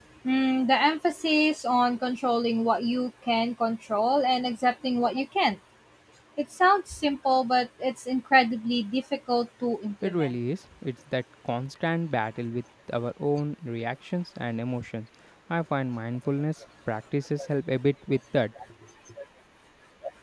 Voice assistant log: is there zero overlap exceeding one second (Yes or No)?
Yes